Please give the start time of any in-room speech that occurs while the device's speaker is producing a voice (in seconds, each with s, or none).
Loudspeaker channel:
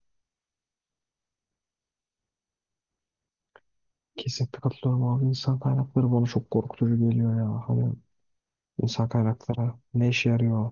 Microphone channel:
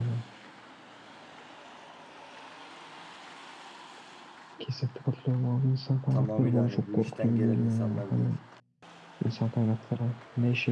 6.1 s